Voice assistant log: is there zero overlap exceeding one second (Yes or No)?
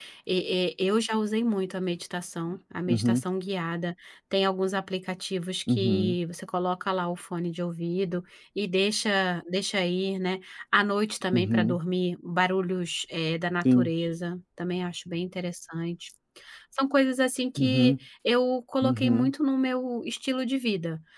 Yes